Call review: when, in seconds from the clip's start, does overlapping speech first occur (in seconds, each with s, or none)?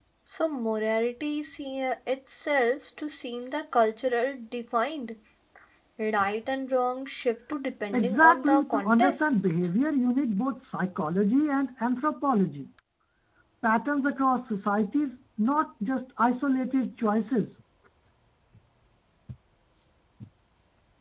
7.9 s